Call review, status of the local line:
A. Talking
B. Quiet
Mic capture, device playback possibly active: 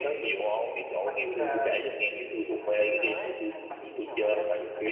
A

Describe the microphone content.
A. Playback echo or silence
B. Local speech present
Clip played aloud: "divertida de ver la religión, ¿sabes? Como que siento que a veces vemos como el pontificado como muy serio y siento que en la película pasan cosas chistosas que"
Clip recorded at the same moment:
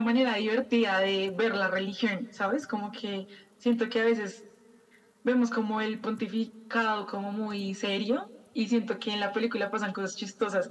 A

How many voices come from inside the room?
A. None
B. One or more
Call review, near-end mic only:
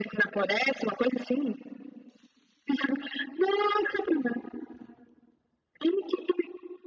A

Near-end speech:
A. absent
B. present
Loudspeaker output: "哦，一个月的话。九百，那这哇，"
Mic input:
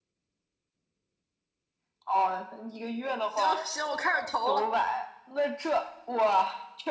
B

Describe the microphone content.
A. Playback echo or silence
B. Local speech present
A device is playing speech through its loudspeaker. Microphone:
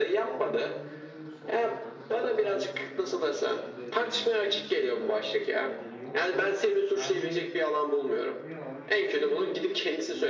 B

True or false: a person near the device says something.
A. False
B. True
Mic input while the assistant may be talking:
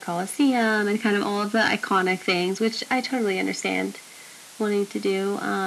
A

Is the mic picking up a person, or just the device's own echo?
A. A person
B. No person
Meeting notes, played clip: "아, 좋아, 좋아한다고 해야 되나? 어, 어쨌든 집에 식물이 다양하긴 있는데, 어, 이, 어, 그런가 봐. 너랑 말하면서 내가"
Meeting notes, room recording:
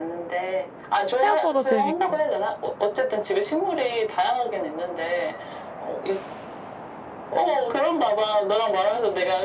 A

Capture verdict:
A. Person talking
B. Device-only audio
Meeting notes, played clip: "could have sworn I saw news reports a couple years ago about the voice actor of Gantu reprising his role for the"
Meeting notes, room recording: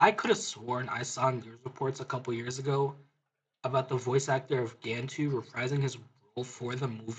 B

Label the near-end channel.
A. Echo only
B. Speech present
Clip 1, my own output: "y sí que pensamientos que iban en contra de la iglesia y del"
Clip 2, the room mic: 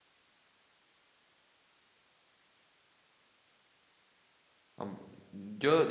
B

